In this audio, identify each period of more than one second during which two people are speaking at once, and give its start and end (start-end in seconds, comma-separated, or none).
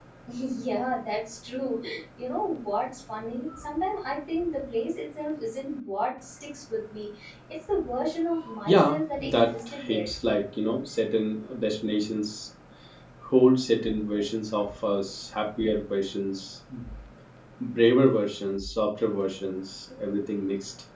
8.7-10.1